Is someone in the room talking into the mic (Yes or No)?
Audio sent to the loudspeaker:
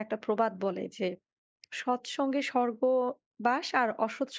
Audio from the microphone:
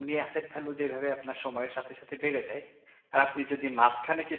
Yes